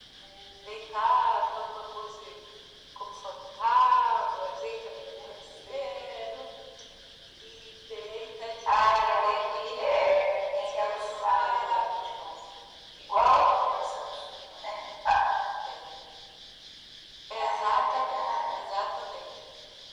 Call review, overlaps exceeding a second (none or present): present